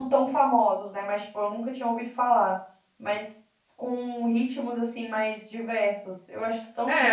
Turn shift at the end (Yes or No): Yes